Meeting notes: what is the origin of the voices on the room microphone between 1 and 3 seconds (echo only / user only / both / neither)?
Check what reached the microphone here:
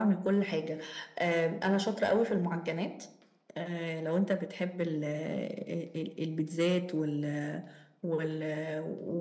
echo only